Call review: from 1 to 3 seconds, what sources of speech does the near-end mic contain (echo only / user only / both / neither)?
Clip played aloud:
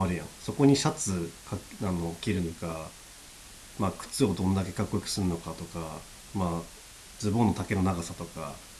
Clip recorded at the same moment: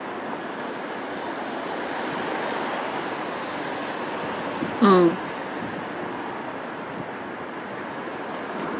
neither